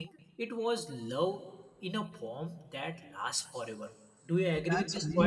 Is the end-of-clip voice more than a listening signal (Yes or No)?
Yes